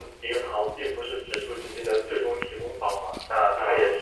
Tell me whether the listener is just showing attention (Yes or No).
Yes